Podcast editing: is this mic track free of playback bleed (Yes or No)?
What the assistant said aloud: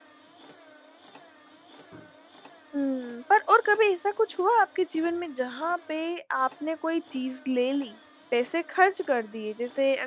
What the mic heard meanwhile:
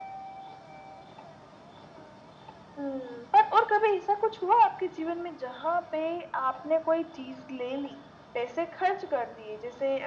No